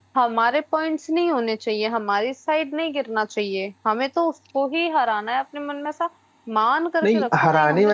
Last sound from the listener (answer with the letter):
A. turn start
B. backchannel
A